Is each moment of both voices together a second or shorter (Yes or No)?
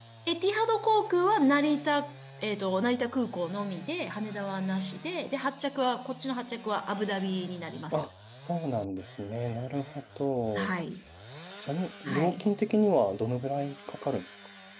Yes